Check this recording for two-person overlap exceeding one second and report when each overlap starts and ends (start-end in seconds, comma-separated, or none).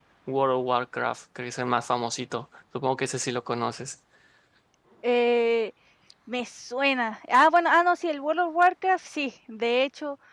none